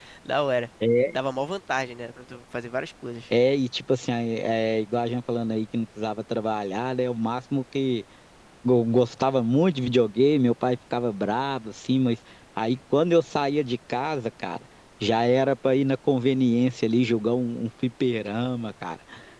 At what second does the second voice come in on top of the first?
none

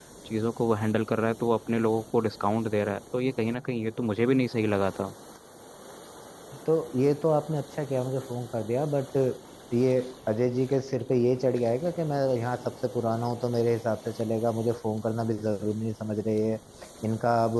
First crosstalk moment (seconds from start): none

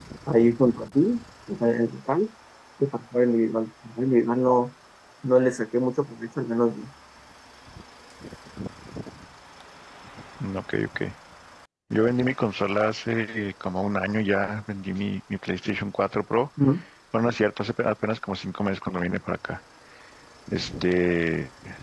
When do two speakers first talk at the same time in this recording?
none

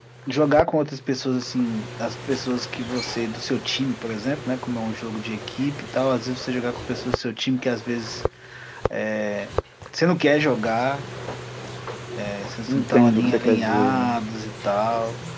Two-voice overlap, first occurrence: 12.7 s

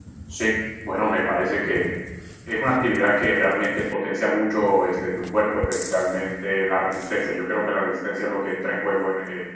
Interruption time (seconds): none

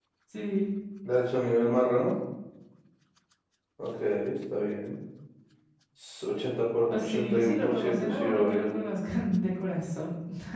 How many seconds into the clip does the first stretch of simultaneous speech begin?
6.9 s

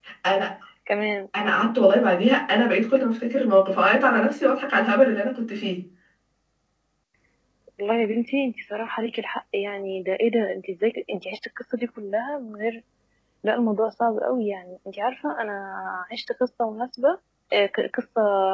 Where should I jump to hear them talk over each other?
none

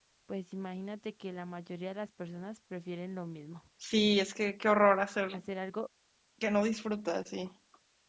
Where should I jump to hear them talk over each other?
none

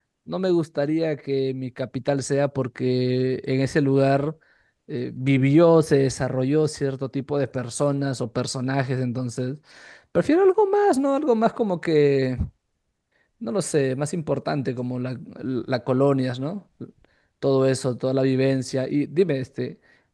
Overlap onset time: none

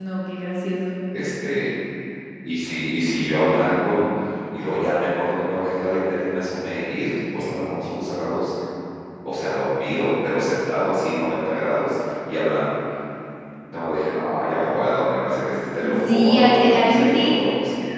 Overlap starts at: 16.1 s

